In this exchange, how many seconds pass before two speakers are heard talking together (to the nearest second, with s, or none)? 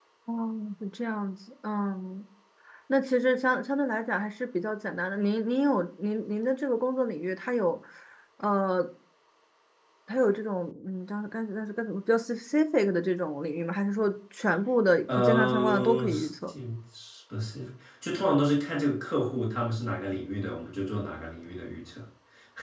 15 s